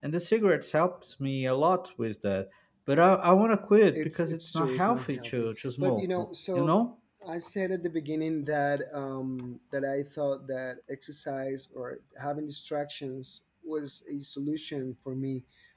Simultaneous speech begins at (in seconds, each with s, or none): 3.9 s